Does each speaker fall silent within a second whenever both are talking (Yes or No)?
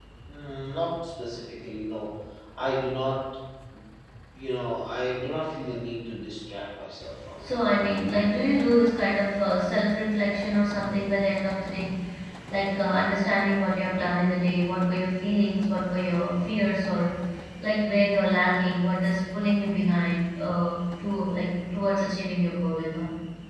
Yes